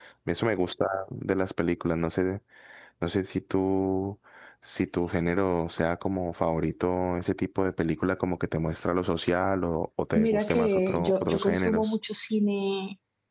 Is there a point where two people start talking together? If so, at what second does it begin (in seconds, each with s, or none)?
10.2 s